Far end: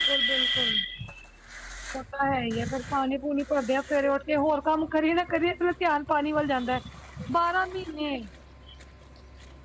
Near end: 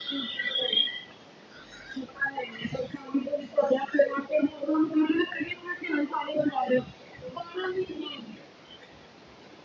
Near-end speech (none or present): none